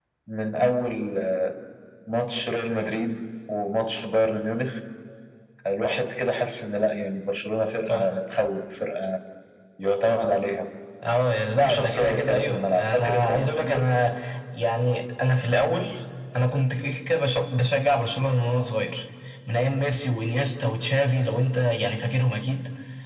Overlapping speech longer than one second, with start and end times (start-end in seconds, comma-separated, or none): 11.6-13.8